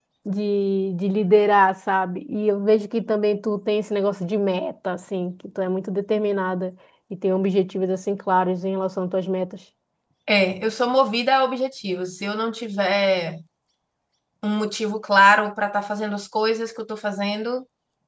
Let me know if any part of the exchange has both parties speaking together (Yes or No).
No